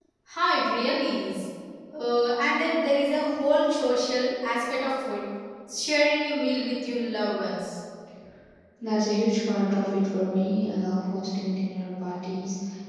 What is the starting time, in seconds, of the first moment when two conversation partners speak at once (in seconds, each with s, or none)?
none